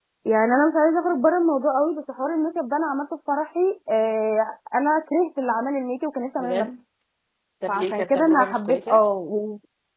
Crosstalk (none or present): present